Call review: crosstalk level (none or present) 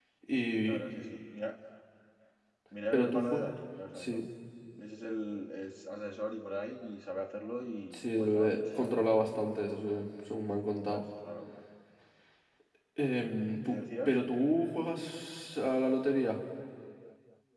present